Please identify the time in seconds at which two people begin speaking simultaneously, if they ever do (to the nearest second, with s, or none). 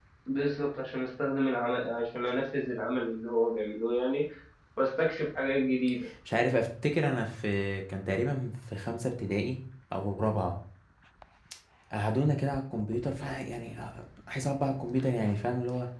none